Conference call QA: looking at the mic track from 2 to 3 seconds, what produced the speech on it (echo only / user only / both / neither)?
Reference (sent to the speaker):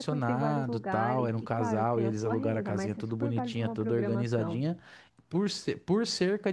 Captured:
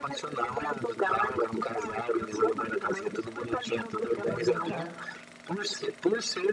echo only